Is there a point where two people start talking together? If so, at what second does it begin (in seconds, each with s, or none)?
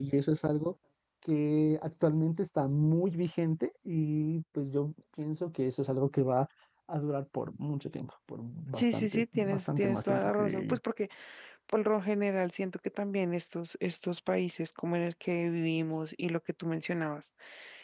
8.7 s